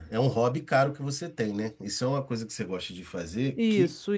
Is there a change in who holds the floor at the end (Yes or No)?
Yes